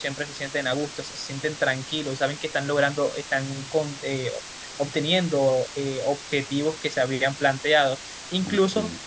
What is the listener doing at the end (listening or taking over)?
listening